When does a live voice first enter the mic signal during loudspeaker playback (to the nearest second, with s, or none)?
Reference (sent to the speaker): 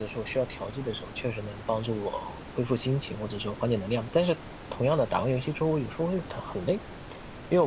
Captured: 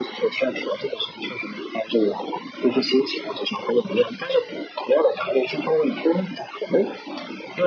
none